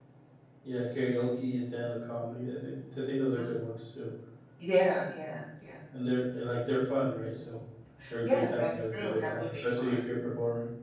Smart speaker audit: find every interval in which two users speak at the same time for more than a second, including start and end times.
8.2-9.9

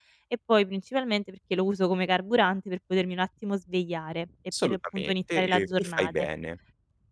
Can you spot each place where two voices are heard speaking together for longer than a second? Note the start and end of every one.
4.6-6.3

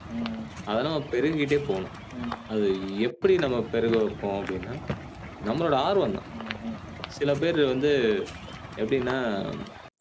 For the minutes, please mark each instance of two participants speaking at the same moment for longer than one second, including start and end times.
none

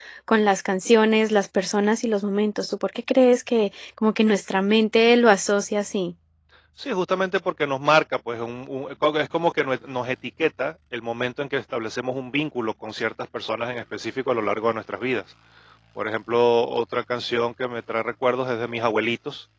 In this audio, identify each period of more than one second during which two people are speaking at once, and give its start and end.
none

